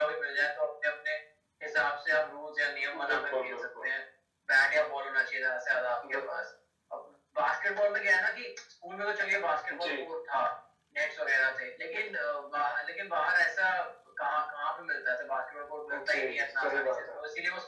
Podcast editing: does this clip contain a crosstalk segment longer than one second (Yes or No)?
Yes